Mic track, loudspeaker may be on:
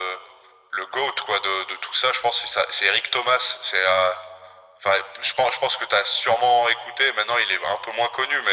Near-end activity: none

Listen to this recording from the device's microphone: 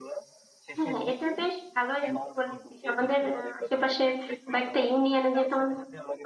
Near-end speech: present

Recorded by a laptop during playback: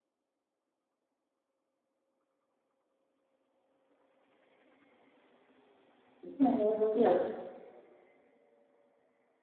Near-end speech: present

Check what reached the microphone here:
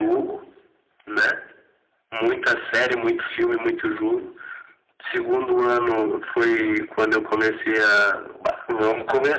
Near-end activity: none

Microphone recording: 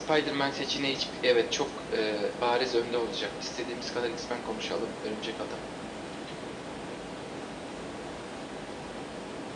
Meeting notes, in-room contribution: none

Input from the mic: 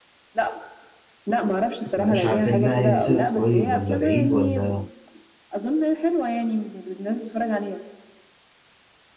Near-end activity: present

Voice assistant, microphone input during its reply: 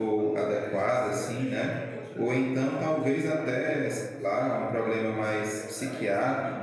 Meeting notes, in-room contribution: present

